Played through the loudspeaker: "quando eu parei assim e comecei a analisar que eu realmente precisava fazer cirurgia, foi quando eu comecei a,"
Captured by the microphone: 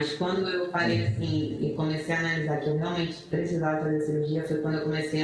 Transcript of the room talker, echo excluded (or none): Uhum.